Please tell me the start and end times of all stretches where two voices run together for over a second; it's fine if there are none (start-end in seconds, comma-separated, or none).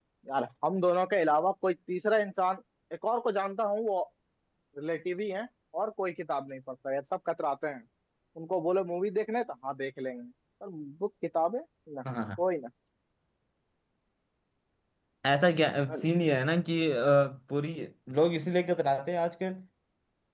none